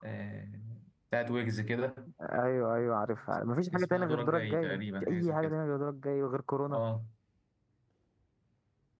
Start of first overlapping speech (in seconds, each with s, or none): 3.7 s